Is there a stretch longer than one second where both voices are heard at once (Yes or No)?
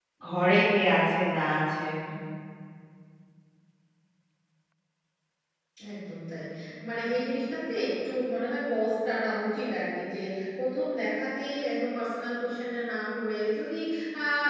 No